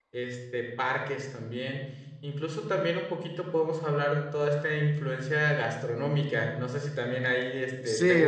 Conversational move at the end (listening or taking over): taking over